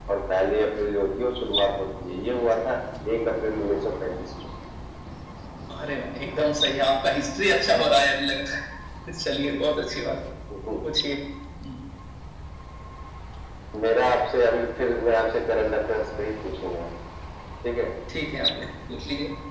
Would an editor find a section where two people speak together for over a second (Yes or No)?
No